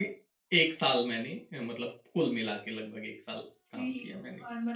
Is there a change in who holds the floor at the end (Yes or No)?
Yes